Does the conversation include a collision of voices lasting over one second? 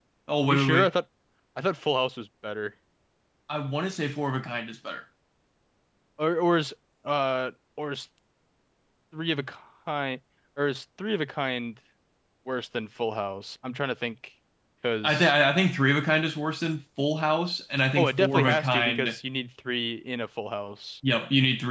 Yes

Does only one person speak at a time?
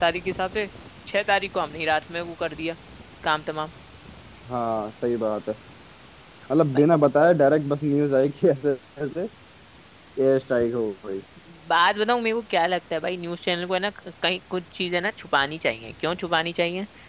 Yes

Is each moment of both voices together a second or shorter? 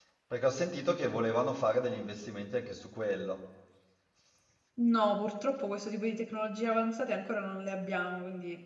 Yes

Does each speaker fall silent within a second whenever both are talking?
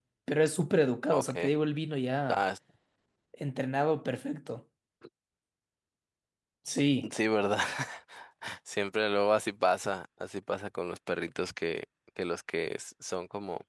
Yes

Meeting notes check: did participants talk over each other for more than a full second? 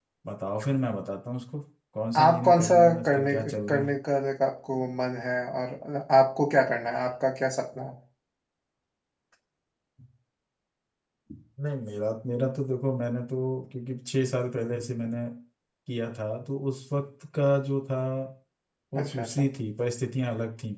Yes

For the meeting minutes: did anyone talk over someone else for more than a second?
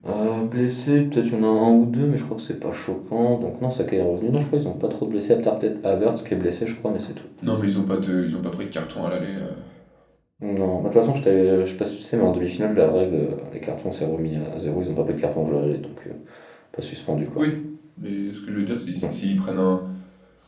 No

